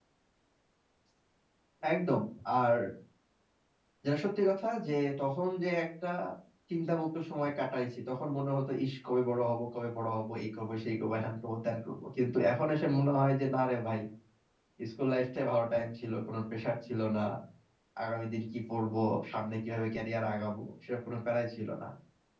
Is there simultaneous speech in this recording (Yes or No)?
No